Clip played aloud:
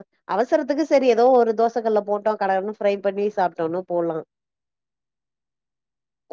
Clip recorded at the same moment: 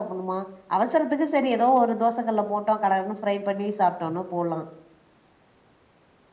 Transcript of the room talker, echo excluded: none

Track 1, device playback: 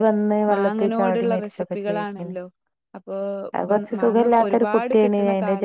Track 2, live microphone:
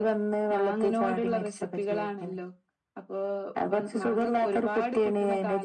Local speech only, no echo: none

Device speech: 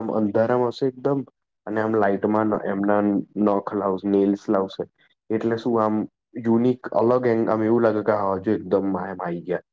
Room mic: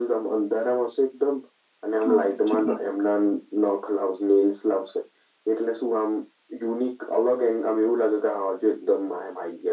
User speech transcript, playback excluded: ઓકે

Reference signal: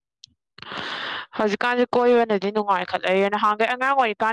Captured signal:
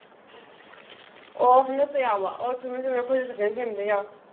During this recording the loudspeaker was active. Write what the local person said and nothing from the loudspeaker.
ꯑꯣ ꯍꯟꯗꯛꯇ ꯌꯥꯎꯕ ꯑꯣ ꯆꯨꯝꯃꯦ ꯆꯨꯝꯃꯦ ꯑꯩꯈꯣꯏꯁꯨ ꯁꯦꯀꯦꯟ ꯁꯦꯝꯗ ꯌꯥꯎ

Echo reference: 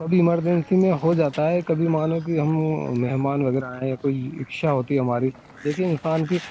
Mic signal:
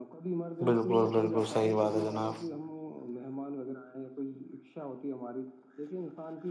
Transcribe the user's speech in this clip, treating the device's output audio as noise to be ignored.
بالکل بالکل صحیح بات ہے جناب

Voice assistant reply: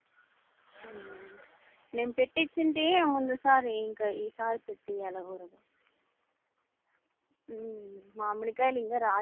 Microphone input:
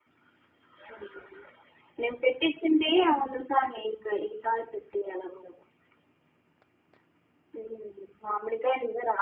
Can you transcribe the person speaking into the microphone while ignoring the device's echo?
none

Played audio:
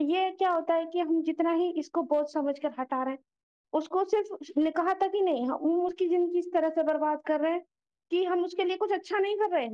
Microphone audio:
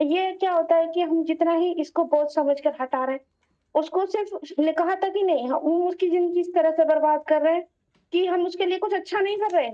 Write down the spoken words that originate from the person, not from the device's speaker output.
none

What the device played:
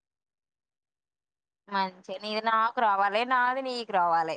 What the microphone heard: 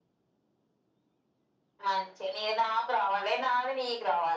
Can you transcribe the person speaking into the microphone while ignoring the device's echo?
none

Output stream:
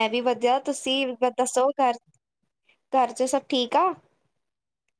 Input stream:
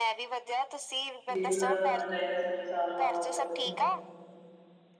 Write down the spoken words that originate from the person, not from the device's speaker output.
ਮੇਰੀ ਦਾ ਹੋਣਾ ਚਾਹੀਦਾ ਸਮਾ ਸਾਰਾ ਹਵਾ -ਹਵਾ ਕੁਛ

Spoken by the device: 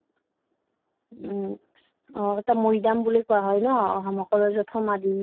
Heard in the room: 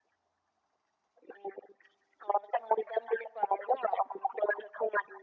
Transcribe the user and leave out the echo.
none

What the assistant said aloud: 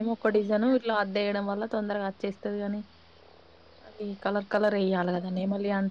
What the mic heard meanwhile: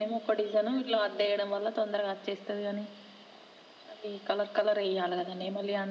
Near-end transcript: none

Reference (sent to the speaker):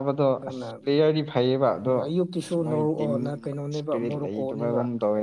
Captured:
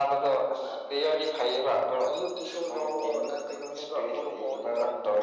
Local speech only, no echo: none

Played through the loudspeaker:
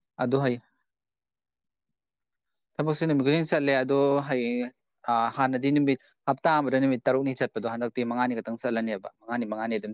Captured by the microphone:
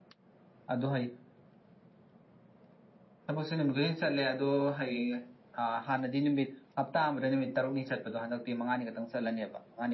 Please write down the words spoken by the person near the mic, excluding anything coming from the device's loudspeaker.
none

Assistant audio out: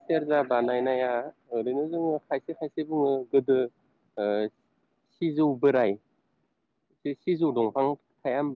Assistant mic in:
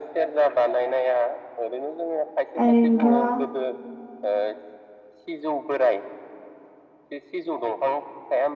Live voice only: ओरैनोथ'

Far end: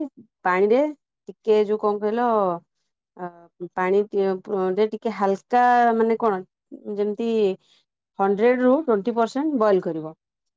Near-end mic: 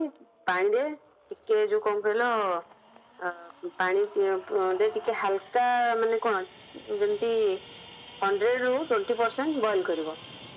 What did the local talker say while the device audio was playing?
none

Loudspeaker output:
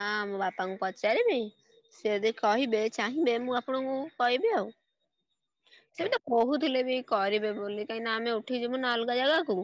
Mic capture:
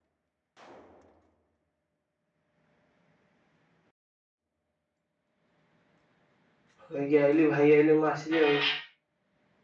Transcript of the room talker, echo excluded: ଭାଇ ଆଇଲେ ମୁଁ ଆସିଲି ଆଉ।

